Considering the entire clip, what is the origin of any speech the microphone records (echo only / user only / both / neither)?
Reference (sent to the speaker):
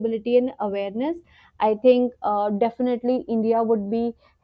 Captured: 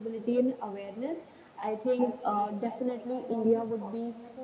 both